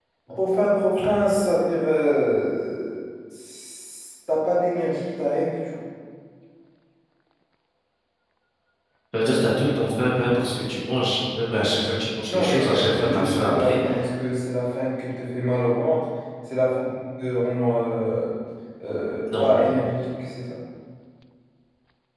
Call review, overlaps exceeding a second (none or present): present